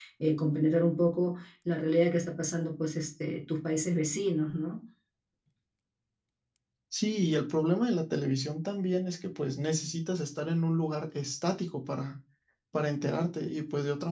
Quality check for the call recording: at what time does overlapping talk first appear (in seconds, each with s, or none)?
none